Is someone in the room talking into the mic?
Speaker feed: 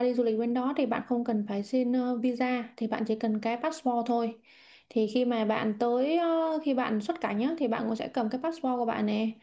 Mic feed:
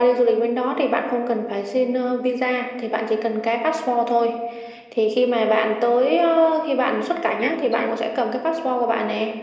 Yes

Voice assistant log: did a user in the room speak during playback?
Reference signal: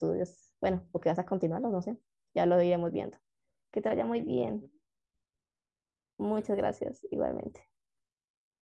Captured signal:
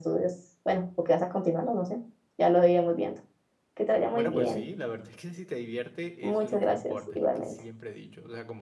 Yes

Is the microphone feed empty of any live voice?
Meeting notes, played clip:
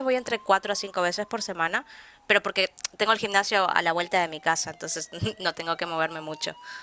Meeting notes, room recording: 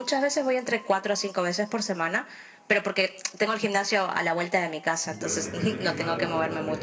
No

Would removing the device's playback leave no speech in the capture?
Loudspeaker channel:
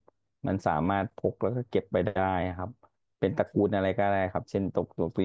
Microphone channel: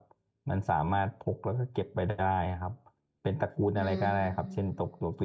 No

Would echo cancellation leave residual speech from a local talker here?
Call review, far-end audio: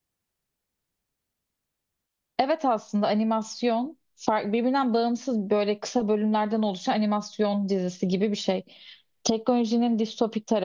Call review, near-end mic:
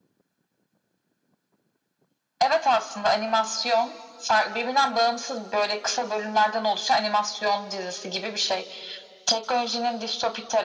No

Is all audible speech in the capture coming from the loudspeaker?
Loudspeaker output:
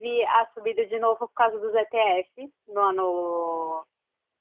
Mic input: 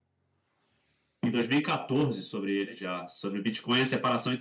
No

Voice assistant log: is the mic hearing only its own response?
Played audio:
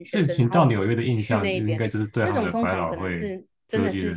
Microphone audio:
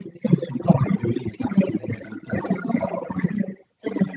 Yes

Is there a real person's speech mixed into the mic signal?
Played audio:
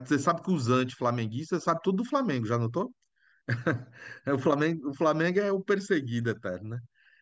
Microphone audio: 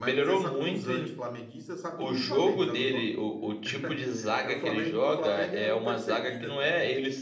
Yes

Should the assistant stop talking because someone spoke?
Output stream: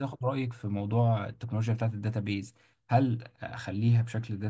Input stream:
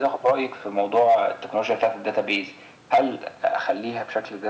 No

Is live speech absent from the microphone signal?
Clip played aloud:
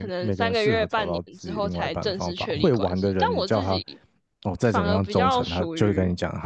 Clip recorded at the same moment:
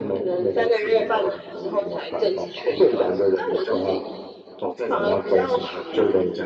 Yes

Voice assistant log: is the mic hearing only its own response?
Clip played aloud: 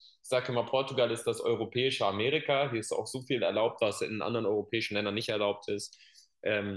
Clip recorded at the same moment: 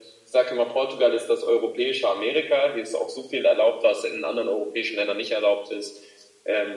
Yes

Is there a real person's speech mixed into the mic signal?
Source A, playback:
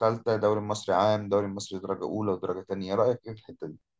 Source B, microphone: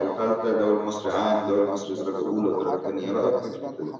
Yes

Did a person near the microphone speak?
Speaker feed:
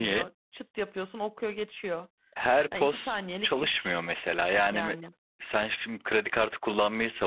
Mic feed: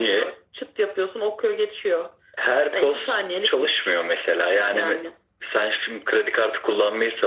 No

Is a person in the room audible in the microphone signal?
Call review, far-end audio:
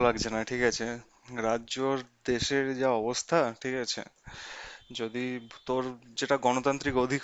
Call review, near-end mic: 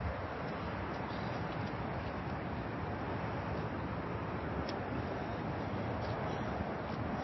No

